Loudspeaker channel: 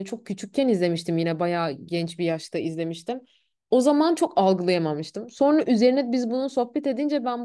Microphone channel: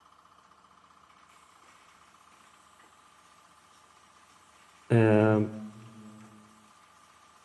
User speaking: Yes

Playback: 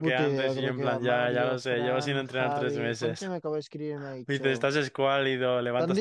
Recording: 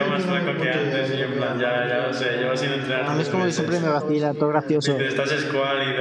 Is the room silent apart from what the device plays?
No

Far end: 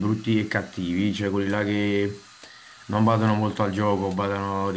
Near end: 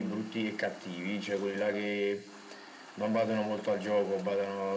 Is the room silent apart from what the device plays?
Yes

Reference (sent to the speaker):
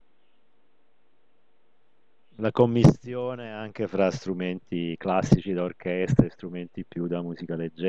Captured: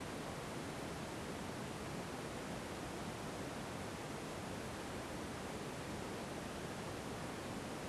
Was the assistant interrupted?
No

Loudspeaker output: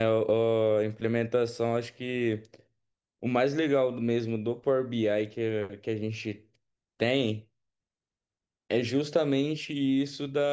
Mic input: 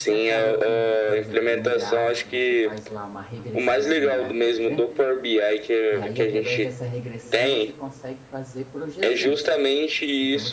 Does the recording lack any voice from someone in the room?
No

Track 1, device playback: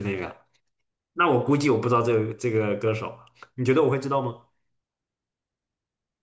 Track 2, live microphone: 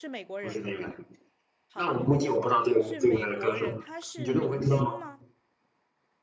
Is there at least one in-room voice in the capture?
Yes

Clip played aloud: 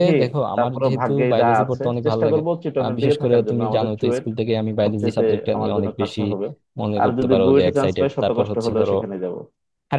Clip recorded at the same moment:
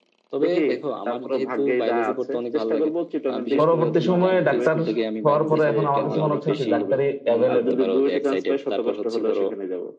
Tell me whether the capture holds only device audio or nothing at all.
No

